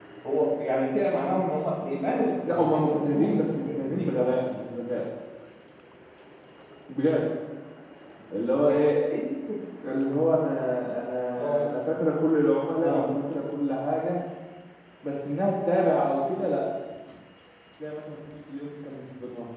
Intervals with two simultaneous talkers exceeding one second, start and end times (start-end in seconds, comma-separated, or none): 2.5-4.2